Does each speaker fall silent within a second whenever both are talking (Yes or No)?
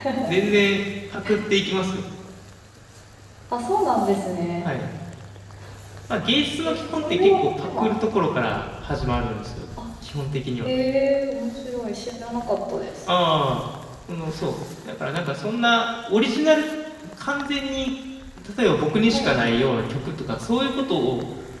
No